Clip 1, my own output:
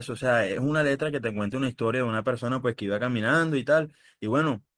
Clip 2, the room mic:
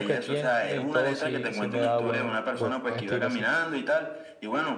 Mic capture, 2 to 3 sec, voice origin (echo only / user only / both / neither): both